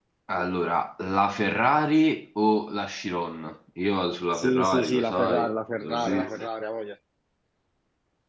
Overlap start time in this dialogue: 4.3 s

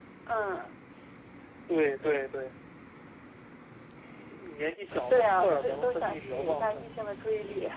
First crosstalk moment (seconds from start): 5.1 s

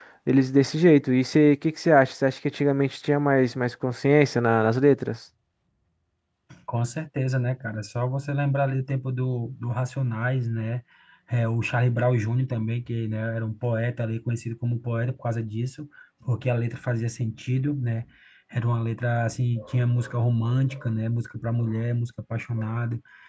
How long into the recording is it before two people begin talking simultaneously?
none

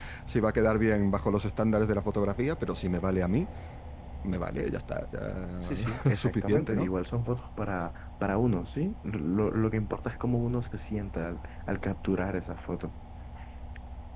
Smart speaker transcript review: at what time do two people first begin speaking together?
5.7 s

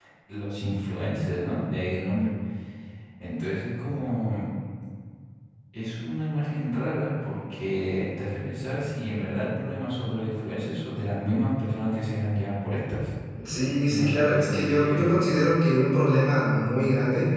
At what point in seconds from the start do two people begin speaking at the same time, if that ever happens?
13.8 s

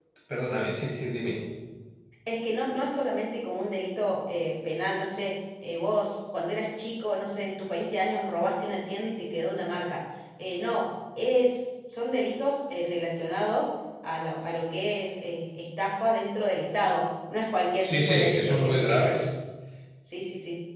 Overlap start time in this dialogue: 17.8 s

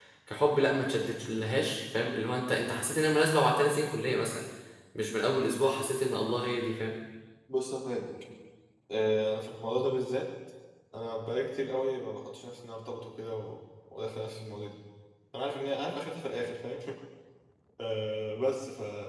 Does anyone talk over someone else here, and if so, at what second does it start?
none

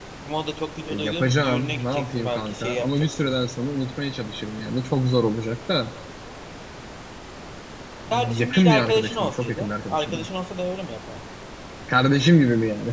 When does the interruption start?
0.9 s

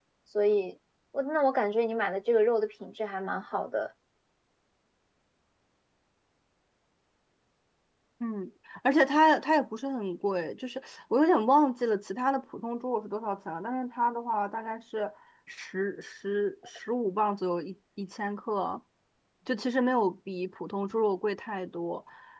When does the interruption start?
none

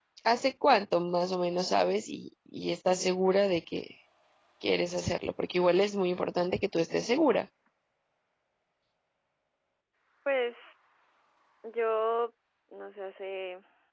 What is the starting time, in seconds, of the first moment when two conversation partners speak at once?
none

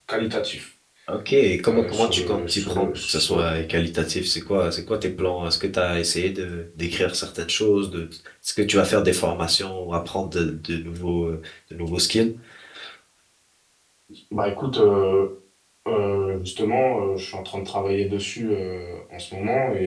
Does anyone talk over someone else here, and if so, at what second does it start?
1.7 s

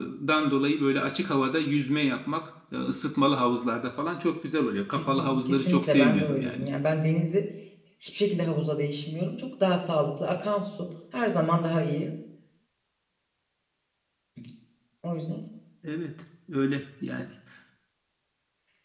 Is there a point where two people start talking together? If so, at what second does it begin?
5.0 s

